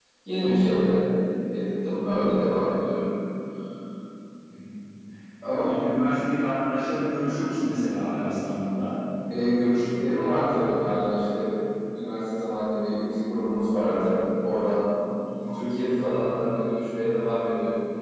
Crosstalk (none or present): none